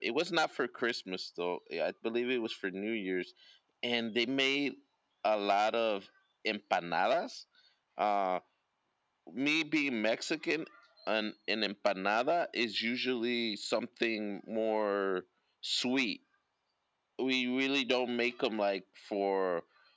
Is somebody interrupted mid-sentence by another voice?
No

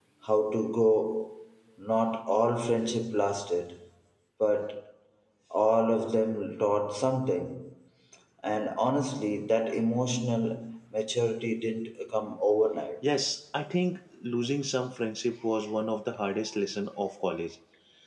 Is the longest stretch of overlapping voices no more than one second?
Yes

